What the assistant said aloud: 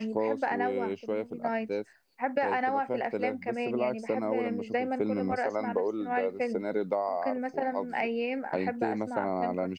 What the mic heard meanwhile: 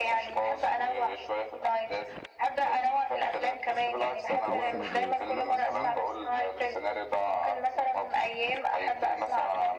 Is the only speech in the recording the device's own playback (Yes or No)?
No